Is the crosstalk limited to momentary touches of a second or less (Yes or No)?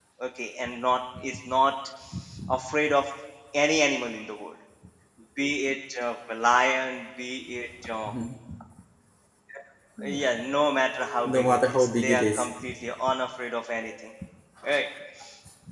No